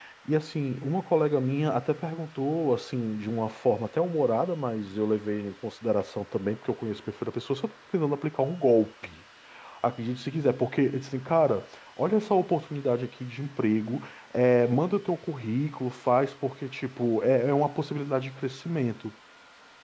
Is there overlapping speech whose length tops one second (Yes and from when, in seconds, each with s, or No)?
No